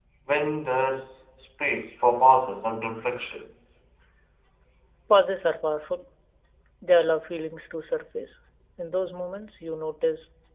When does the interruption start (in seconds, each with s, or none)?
none